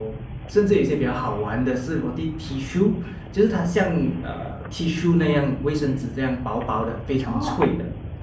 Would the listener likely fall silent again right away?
No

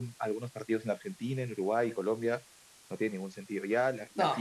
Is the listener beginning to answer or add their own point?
No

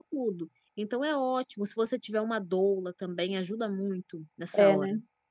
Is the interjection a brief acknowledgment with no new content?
No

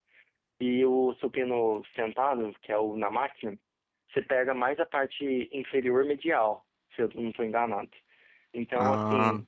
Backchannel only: Yes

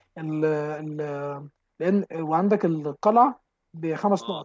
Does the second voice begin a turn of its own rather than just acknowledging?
No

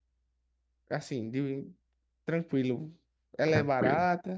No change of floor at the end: No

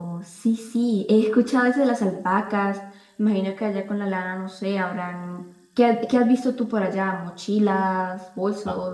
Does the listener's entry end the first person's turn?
Yes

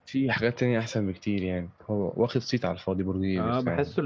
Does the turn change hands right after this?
Yes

